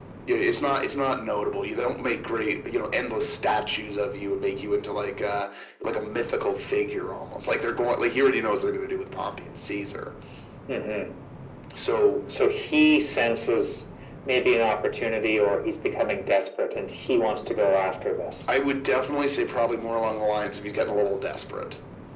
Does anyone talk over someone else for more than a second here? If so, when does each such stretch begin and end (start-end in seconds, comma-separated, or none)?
none